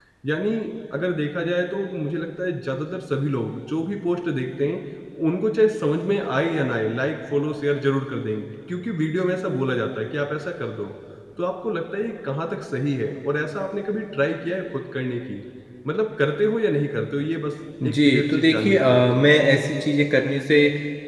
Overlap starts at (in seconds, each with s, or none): 17.8 s